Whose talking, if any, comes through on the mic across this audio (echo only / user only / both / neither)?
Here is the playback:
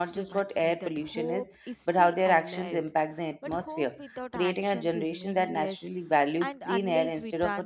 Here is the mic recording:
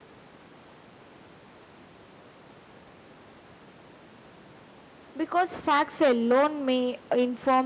user only